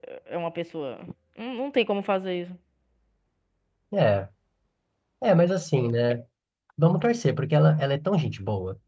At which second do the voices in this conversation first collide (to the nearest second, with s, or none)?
none